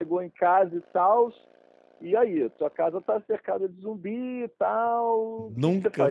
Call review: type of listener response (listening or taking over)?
taking over